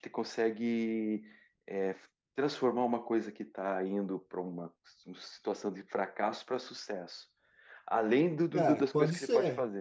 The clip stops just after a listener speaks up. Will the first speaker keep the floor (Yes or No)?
No